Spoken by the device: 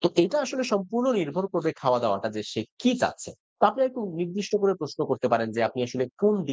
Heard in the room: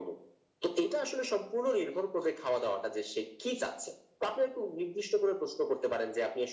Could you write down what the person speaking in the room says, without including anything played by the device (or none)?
none